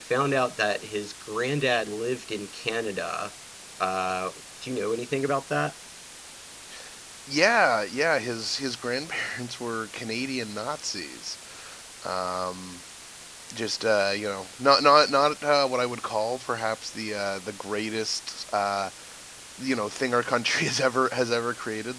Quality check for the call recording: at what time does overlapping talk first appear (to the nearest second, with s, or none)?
none